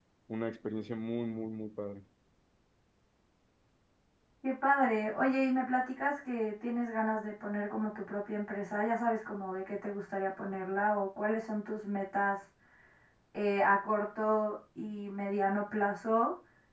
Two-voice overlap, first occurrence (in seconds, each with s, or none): none